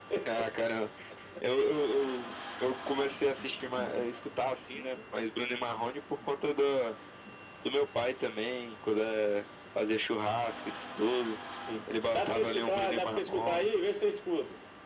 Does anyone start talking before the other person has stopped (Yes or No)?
Yes